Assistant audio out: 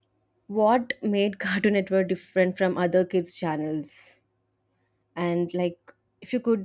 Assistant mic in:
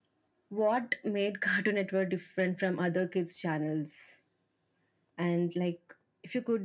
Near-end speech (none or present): none